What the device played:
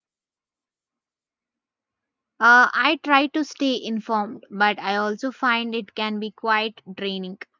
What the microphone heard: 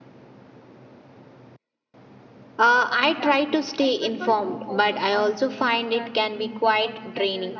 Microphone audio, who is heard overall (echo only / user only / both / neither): both